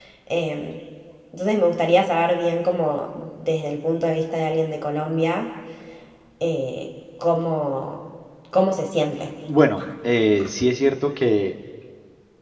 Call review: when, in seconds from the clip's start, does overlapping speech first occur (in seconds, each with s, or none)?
none